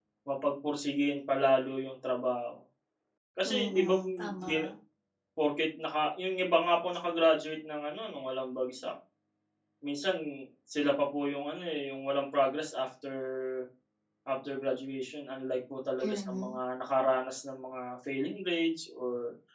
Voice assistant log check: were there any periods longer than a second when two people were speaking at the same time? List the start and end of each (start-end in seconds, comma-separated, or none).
3.4-4.7